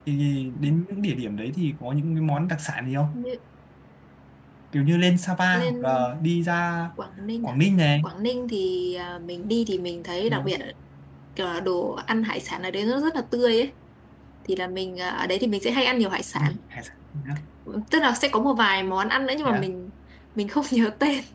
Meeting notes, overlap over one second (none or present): none